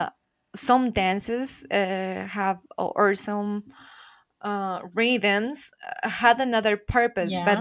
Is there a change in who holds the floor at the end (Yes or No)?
No